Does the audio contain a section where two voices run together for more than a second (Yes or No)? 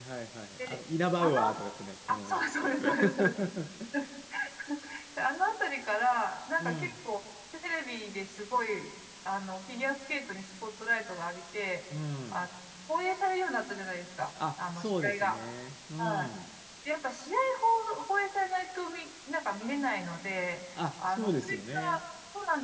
Yes